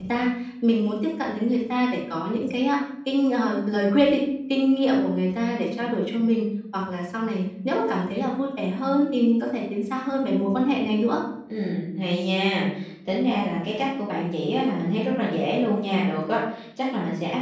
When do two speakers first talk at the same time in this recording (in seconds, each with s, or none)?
none